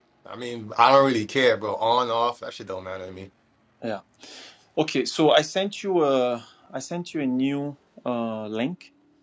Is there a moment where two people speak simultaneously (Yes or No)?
No